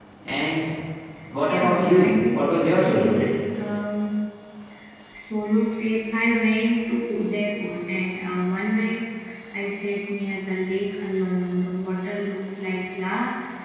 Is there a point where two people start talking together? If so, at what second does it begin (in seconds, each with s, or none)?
1.5 s